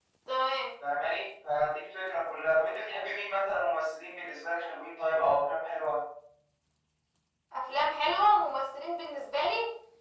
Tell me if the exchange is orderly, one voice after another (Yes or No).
Yes